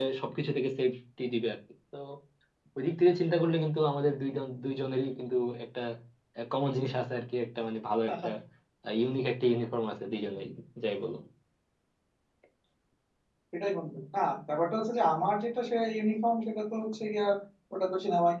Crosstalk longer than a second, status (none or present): none